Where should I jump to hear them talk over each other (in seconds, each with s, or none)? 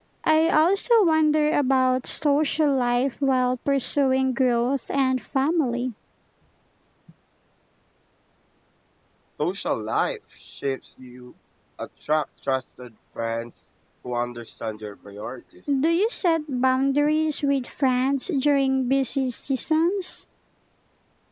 none